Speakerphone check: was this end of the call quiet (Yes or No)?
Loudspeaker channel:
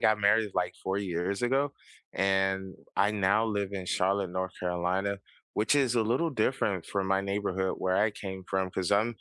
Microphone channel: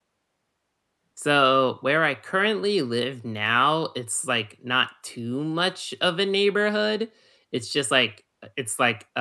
No